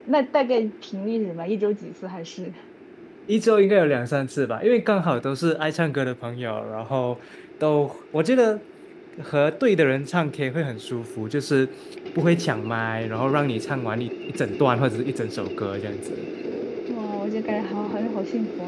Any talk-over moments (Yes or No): No